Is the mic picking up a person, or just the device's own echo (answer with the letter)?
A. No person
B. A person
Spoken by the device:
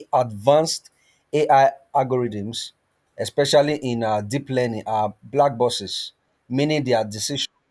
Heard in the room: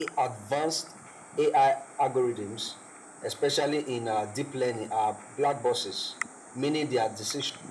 A